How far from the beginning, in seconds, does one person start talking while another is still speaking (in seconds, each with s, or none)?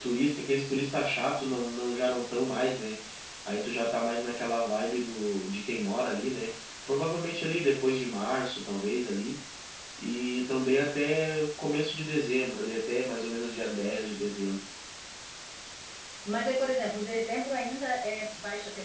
none